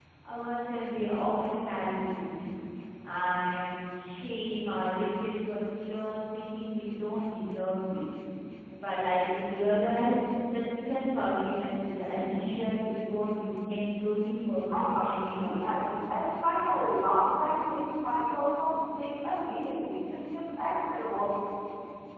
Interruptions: present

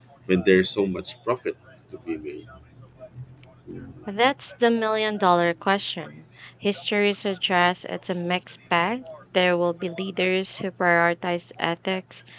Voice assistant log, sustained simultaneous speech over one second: none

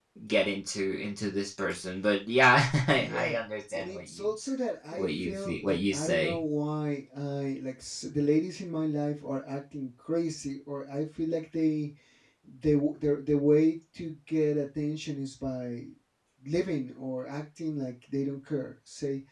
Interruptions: present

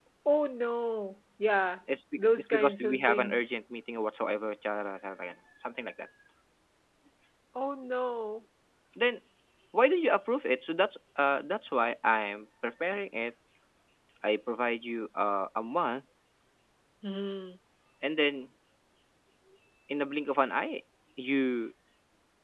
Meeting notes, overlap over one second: present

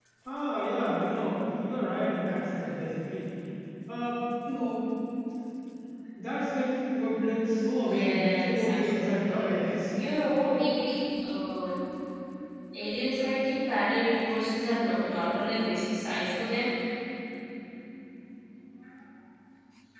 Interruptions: present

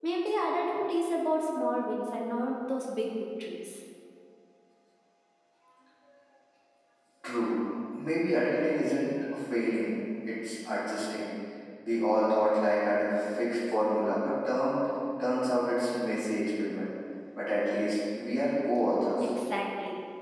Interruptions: none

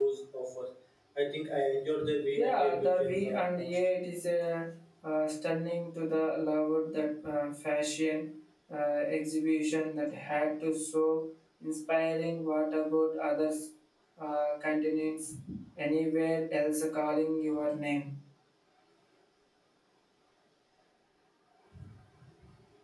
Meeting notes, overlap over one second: present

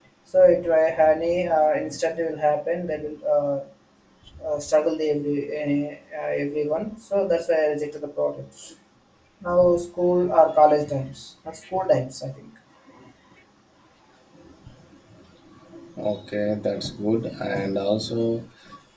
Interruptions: none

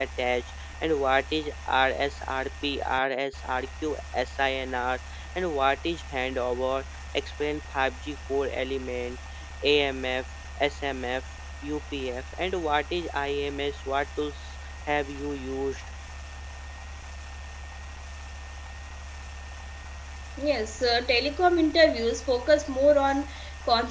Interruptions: none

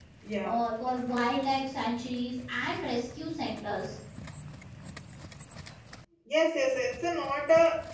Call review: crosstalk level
none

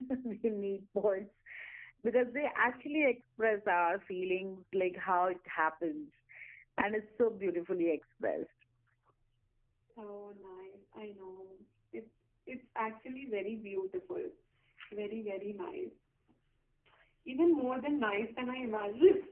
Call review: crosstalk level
none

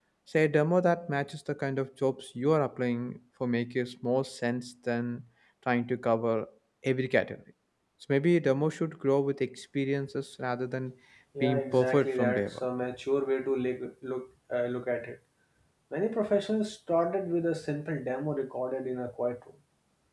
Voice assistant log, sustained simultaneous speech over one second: present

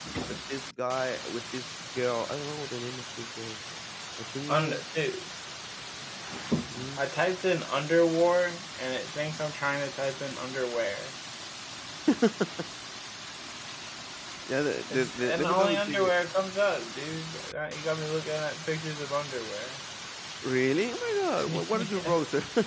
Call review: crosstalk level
present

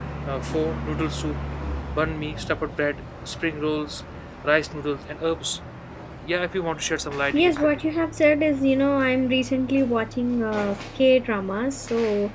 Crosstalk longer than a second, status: none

